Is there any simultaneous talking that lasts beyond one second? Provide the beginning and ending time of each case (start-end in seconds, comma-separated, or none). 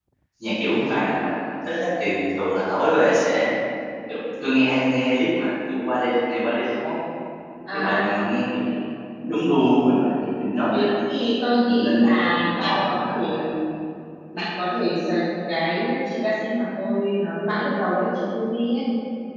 11.6-13.4